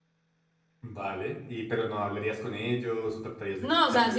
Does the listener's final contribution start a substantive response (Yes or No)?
Yes